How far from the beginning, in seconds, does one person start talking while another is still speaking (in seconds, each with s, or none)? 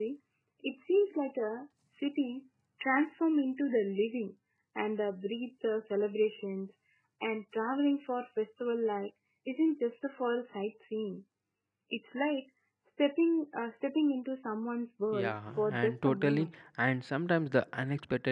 15.1 s